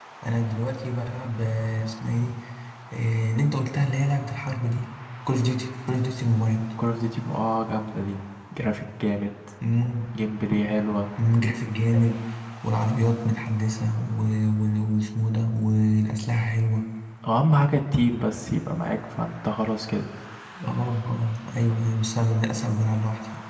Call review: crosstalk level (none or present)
none